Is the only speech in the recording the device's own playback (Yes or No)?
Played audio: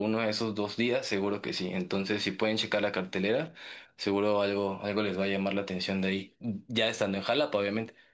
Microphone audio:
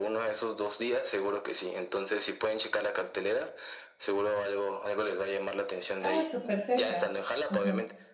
No